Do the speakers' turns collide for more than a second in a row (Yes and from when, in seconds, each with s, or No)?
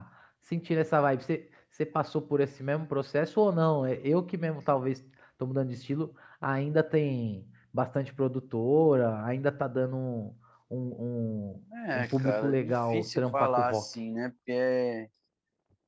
Yes, from 12.0 s